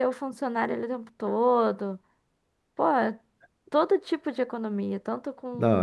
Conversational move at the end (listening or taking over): listening